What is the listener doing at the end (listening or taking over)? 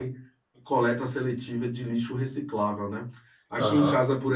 listening